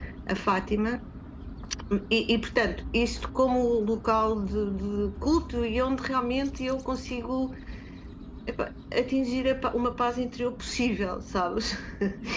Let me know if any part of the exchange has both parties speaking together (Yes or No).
No